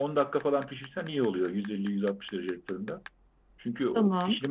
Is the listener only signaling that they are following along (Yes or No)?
Yes